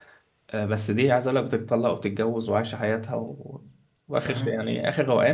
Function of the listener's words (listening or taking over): listening